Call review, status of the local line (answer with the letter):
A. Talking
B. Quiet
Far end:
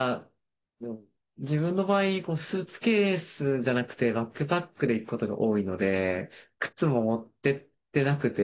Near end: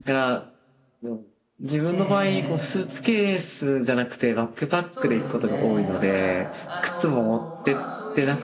A